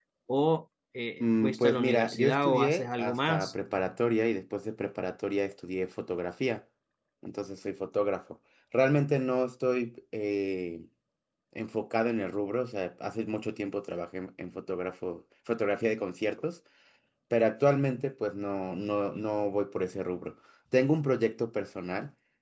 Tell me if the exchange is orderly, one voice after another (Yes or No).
No